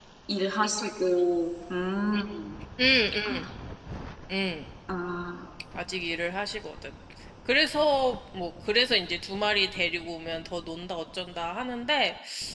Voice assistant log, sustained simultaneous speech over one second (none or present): none